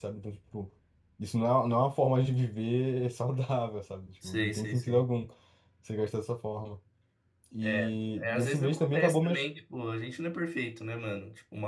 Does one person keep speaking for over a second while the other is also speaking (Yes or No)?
Yes